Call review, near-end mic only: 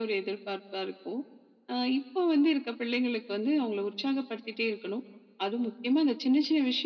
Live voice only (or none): none